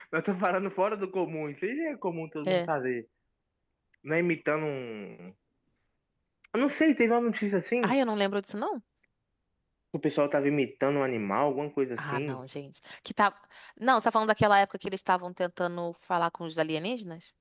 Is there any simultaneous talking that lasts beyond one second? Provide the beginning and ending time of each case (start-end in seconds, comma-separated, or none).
none